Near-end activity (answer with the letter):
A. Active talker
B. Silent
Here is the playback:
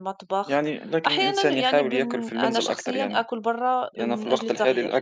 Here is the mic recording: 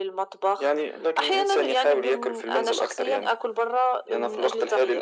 B